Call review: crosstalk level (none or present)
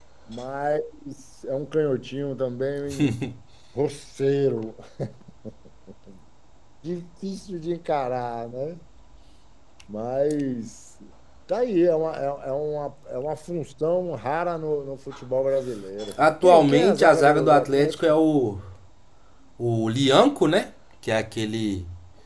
present